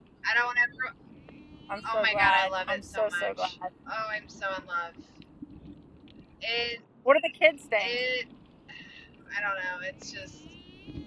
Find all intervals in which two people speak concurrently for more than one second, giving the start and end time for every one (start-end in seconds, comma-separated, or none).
1.9-3.5